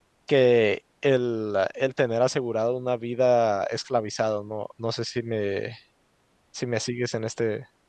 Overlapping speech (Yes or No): No